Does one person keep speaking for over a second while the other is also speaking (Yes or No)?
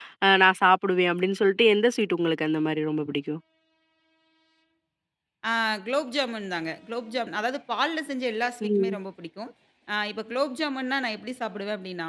No